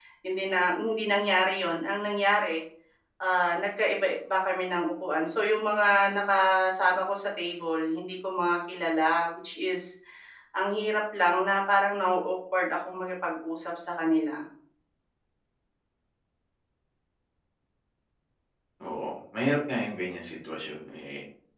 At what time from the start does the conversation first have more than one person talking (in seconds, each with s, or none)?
none